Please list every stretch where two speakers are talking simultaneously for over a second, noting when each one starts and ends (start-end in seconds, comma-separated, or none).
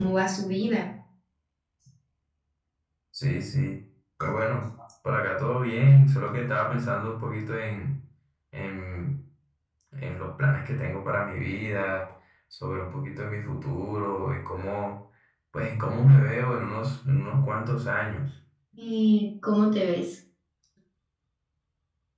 none